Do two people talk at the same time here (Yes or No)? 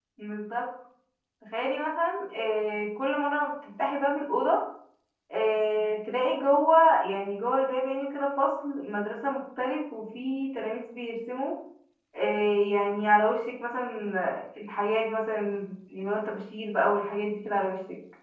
No